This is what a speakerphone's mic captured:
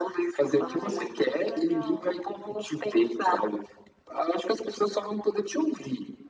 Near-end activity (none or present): present